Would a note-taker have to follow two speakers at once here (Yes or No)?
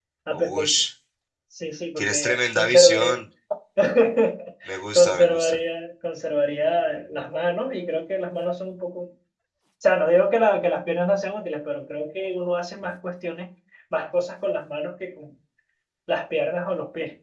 Yes